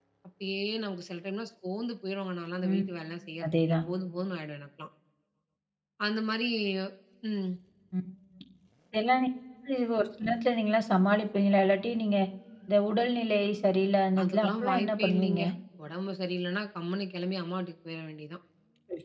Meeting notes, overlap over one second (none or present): present